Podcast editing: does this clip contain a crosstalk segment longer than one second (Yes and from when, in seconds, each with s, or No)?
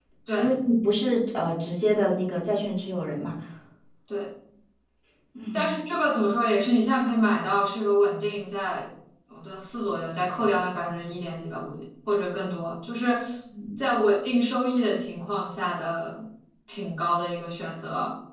No